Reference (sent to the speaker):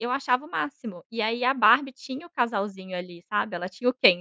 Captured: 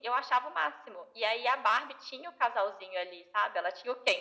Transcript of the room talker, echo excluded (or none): none